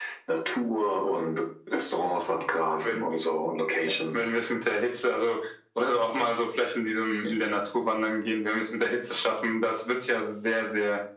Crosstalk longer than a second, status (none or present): none